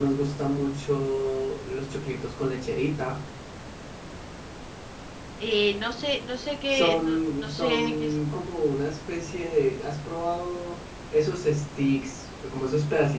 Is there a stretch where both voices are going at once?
Yes, from 6.7 s

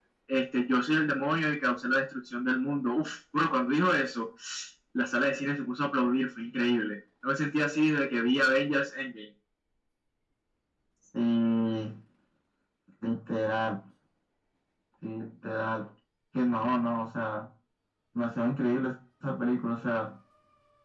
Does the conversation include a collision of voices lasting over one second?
No

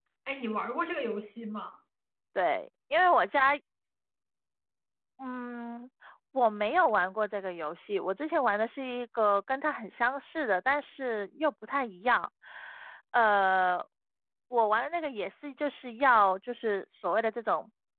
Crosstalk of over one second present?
No

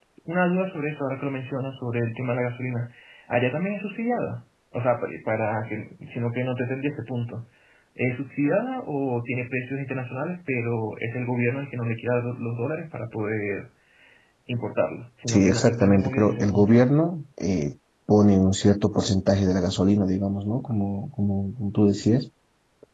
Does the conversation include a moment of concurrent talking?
Yes, from 15.3 s

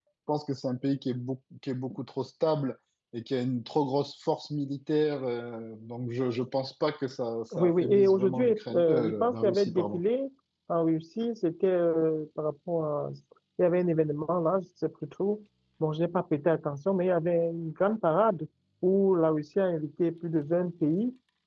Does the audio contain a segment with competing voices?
Yes, from 7.5 s

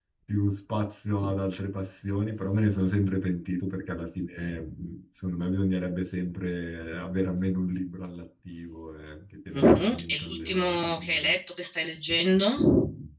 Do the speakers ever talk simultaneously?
Yes, from 9.5 s

